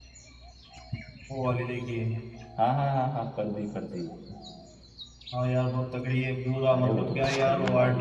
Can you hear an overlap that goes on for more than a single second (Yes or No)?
Yes